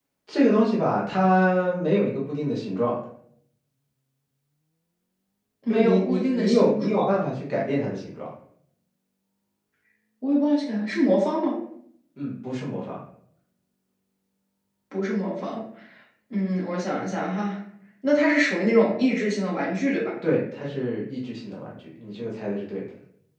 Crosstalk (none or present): present